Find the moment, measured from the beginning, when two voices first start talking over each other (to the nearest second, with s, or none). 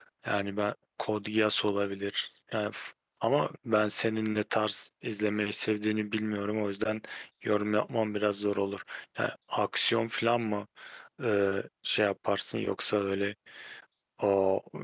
none